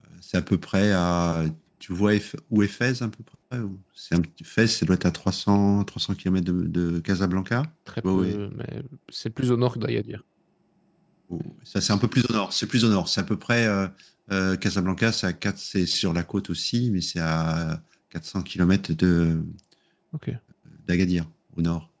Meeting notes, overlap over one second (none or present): none